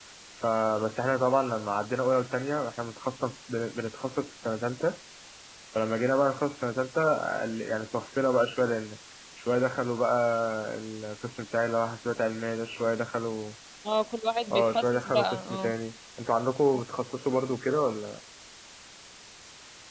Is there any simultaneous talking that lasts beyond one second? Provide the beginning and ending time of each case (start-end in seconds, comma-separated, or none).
14.5-15.7